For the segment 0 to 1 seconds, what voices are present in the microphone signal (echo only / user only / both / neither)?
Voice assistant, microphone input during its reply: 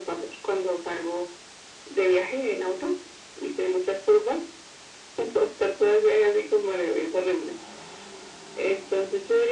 echo only